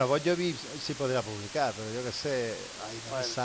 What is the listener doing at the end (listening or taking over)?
listening